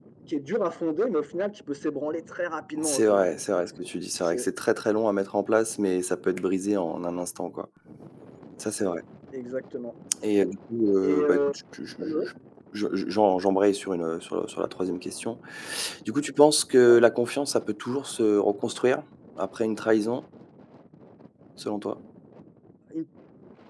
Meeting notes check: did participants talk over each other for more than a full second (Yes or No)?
No